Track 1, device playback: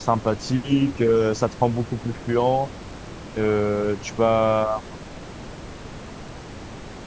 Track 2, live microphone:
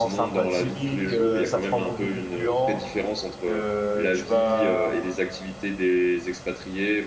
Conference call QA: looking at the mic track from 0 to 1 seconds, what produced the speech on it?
both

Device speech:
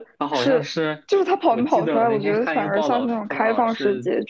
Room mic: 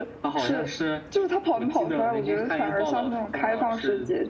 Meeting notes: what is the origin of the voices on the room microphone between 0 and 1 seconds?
echo only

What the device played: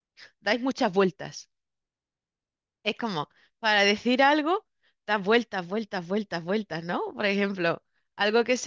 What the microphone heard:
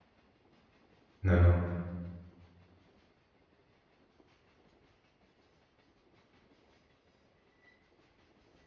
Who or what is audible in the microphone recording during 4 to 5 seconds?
neither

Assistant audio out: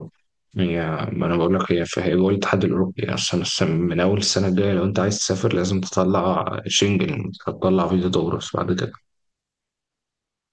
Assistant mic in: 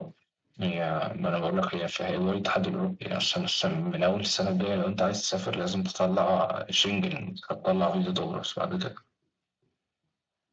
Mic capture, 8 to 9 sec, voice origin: echo only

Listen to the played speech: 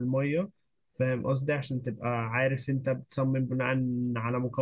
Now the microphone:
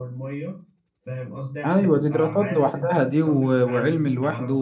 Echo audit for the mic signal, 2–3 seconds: both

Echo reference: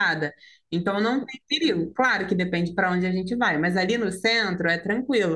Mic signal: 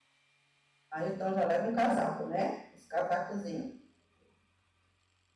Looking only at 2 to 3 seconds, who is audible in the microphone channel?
user only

